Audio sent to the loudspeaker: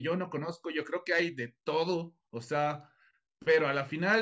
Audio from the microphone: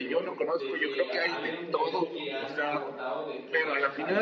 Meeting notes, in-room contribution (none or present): present